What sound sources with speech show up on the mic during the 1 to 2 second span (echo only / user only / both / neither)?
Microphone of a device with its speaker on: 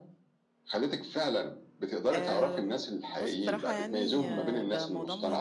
echo only